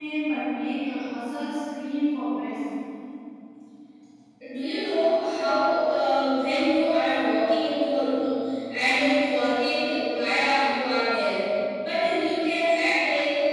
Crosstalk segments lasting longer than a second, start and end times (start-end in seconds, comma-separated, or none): none